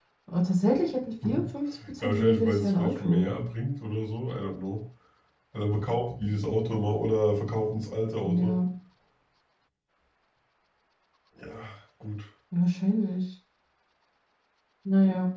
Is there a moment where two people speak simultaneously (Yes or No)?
Yes